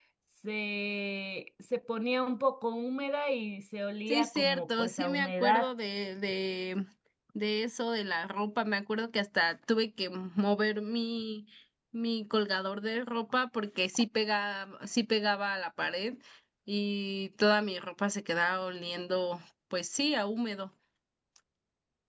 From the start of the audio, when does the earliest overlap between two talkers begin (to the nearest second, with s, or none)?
4 s